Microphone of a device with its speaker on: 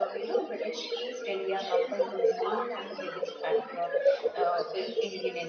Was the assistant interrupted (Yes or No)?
Yes